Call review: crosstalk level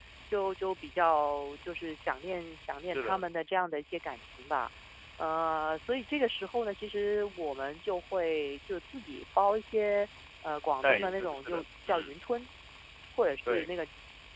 present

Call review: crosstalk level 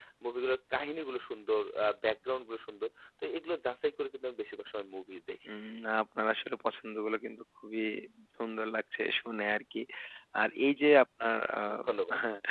none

